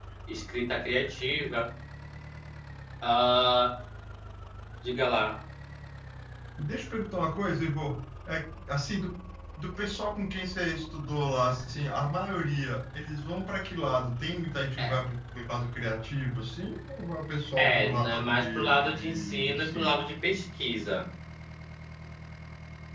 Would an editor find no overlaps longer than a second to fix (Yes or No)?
No